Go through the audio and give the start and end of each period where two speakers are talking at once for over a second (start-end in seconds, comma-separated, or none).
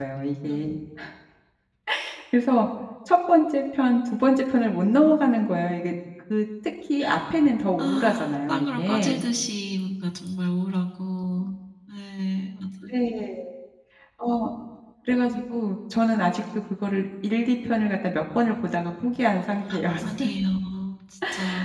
7.8-9.2